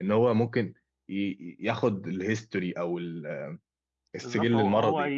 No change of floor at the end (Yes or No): No